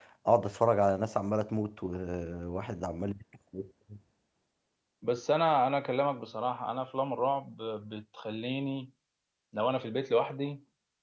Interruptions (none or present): none